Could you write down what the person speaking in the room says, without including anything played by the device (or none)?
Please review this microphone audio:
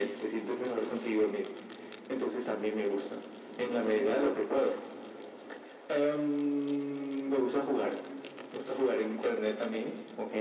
none